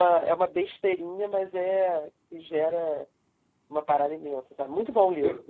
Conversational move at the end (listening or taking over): taking over